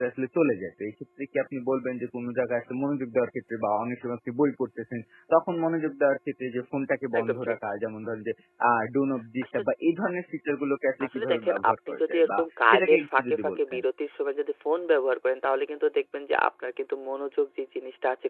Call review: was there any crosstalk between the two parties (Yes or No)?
Yes